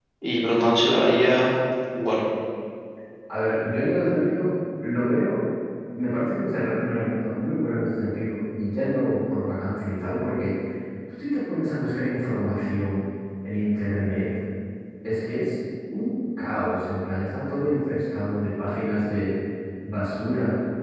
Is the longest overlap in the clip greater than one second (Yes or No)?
No